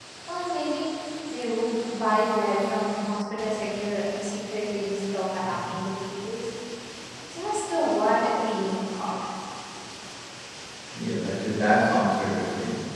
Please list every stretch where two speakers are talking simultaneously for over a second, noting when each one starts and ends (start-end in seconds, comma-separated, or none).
none